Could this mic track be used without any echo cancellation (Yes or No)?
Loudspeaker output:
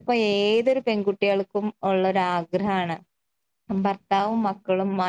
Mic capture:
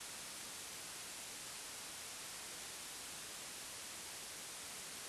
Yes